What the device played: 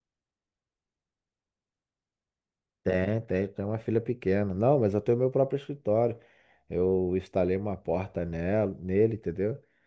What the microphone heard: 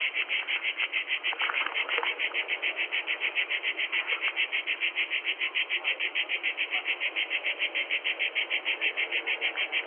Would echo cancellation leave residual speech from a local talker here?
No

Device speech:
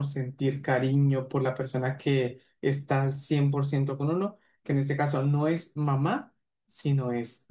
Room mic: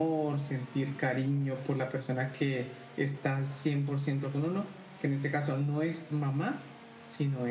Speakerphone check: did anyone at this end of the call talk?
No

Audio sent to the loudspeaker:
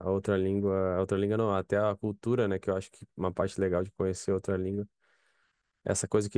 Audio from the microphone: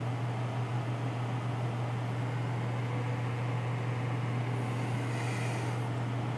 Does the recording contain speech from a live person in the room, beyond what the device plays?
No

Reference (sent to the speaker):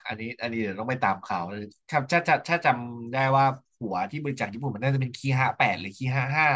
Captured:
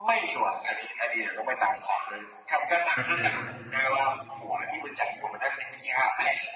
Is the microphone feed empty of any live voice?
No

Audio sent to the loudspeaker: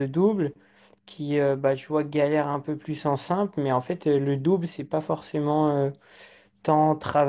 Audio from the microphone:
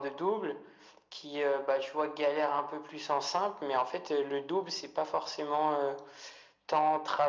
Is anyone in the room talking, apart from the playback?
No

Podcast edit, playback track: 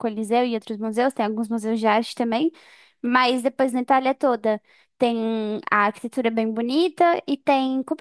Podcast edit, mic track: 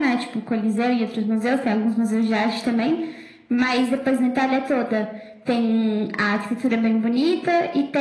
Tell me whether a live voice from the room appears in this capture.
No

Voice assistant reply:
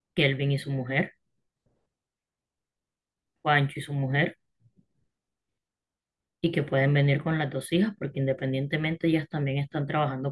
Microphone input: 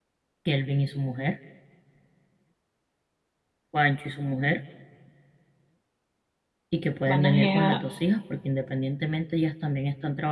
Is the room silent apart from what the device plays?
No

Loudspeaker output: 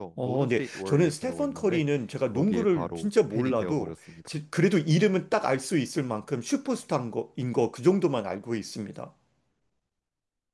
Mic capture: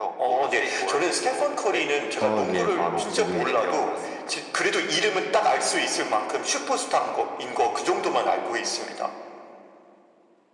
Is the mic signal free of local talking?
No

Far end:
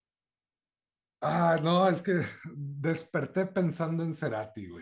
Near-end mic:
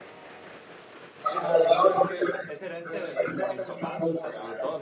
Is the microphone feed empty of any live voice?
No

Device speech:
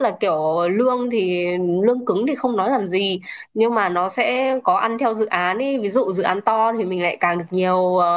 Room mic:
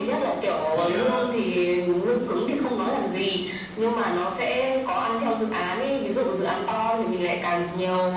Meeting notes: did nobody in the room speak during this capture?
No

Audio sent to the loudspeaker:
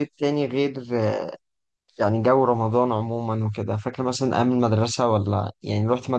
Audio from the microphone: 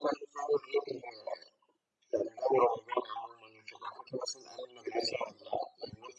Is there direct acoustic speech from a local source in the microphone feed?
No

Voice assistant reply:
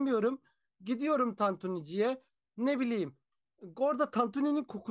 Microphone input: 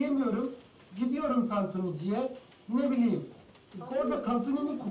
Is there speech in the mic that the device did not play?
Yes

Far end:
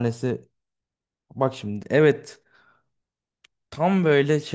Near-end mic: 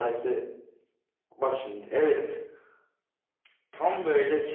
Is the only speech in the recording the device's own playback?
Yes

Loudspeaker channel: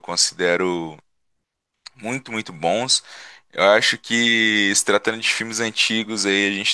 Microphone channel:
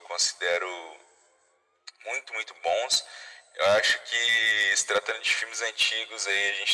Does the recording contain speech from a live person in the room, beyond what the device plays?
No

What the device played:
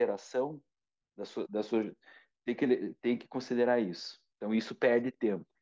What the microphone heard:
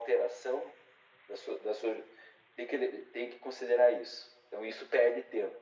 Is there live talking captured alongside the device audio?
No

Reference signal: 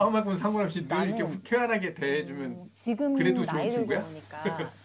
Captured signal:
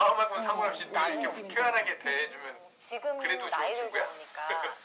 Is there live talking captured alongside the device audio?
Yes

